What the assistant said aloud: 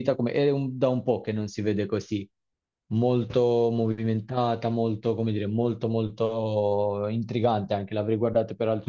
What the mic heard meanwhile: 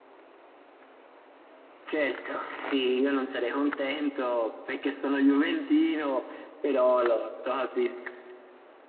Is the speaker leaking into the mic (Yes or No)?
No